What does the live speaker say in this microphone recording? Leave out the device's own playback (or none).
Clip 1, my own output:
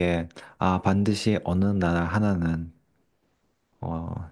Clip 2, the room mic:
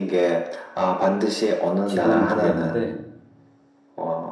지금은 모르겠는데,